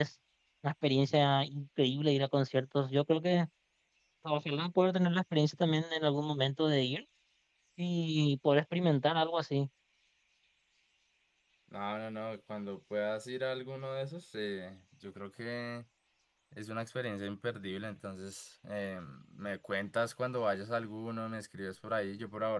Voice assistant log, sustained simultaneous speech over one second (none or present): none